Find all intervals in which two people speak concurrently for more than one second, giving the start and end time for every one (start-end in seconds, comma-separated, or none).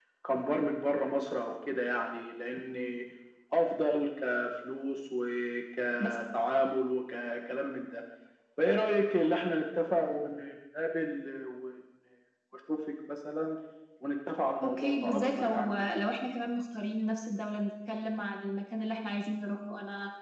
14.6-15.9